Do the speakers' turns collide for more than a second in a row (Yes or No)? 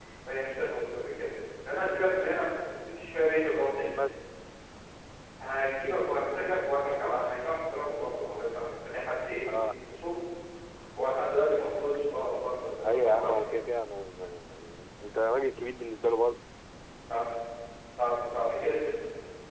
No